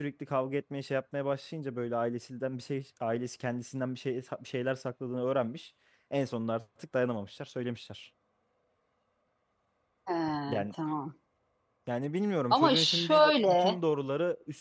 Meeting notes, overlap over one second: present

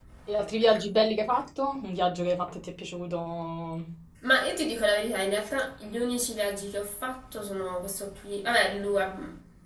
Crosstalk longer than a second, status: none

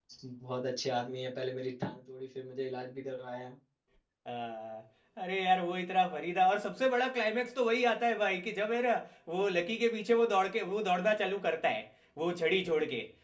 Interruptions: none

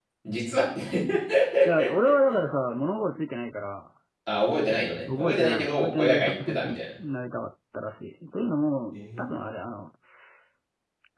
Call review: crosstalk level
present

